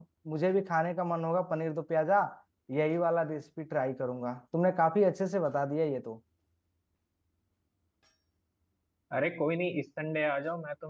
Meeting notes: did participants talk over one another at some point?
No

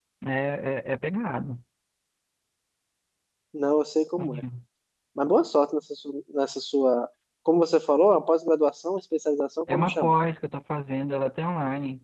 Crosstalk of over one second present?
No

